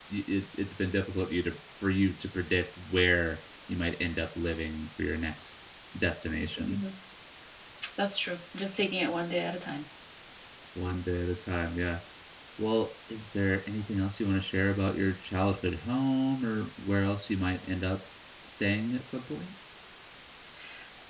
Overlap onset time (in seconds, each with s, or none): none